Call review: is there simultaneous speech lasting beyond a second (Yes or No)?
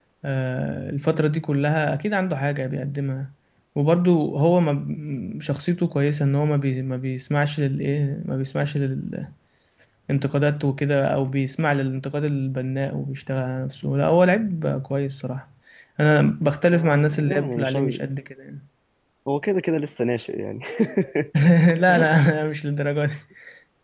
Yes